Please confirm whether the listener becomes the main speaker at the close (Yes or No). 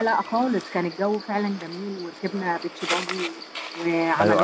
Yes